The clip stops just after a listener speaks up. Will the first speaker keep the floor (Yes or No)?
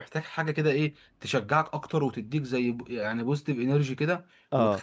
Yes